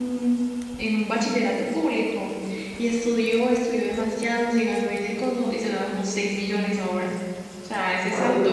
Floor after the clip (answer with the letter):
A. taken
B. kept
B